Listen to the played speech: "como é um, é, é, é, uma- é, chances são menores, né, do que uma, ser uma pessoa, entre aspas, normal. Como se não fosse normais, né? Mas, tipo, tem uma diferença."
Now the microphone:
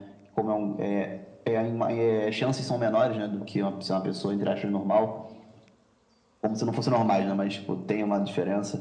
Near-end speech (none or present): none